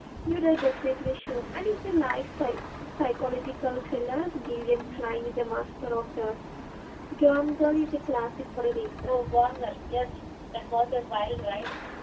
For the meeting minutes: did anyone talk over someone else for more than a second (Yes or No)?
No